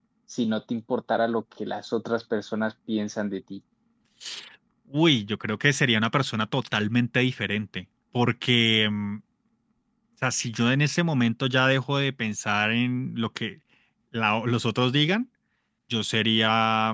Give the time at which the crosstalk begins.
none

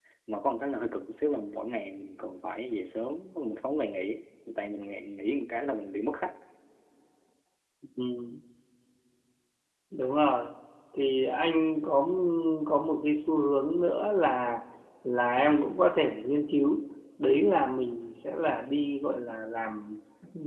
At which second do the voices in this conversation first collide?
none

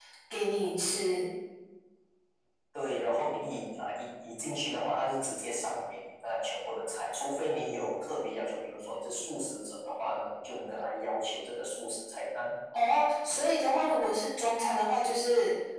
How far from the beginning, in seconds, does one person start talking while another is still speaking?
none

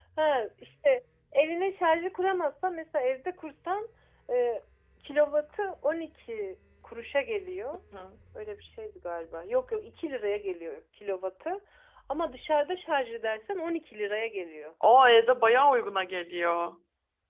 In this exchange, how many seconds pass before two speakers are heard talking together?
none

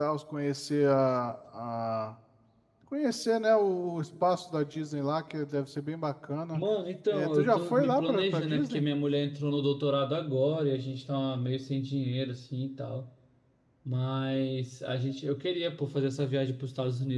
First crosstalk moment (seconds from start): 7 s

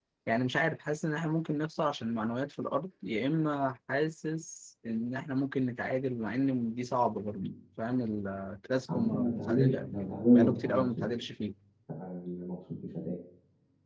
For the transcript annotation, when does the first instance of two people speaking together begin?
9 s

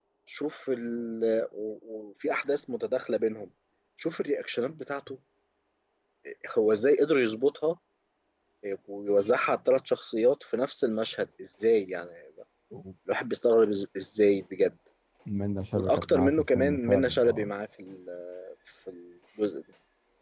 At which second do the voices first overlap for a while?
16 s

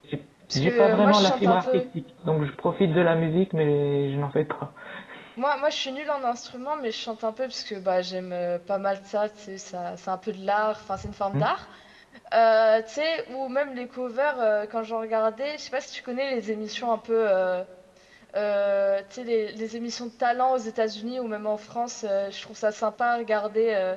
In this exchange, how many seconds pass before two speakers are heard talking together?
1 s

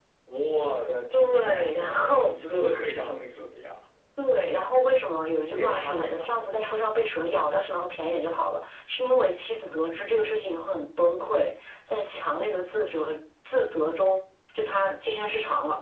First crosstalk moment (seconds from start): 1 s

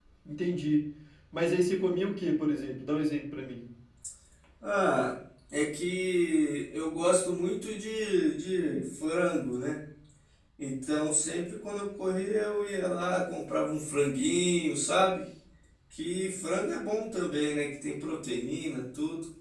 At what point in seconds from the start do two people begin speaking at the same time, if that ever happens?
none

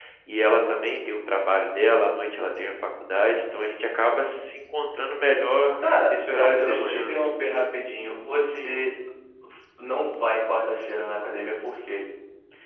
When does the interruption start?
6 s

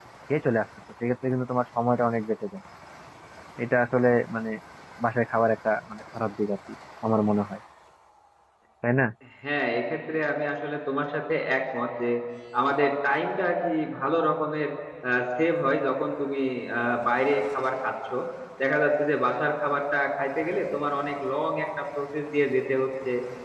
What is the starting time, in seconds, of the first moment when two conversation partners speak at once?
none

